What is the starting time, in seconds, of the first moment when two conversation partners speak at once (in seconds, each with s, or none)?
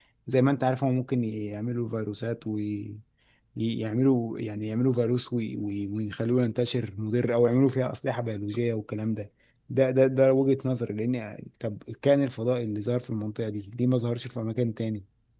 none